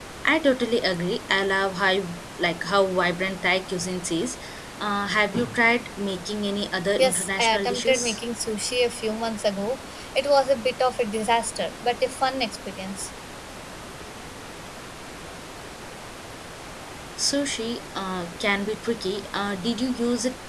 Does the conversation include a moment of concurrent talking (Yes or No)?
Yes